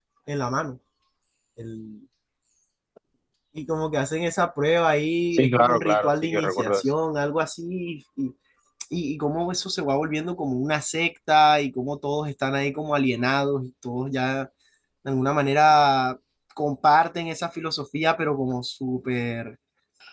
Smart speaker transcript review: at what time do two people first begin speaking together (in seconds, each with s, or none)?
5.3 s